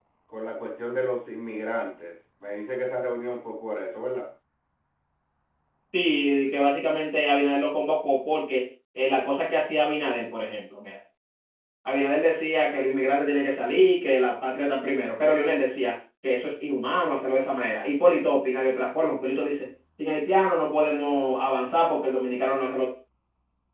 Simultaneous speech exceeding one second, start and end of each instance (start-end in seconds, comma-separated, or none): none